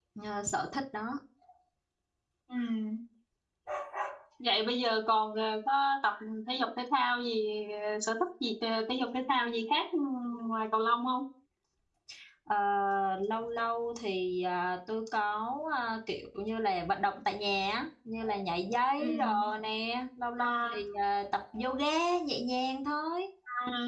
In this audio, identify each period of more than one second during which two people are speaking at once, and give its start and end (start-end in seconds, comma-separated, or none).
none